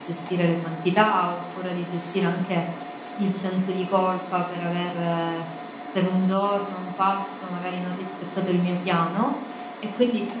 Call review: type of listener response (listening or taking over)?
listening